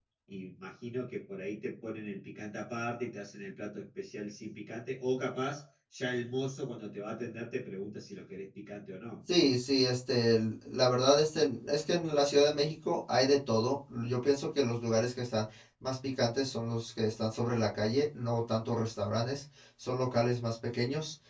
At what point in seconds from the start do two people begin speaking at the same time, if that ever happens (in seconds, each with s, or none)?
none